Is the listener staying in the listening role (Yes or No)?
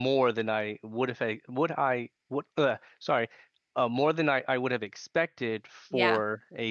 Yes